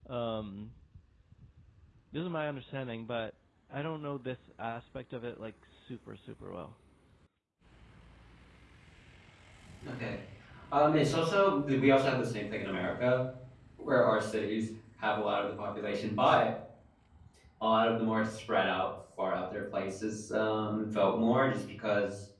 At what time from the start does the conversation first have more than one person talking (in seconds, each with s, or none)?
none